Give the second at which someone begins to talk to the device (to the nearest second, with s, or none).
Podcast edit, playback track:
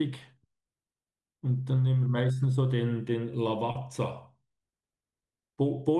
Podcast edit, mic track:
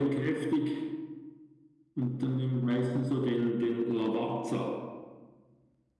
none